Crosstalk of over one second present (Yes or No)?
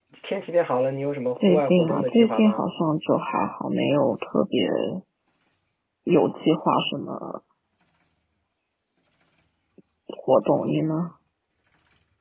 Yes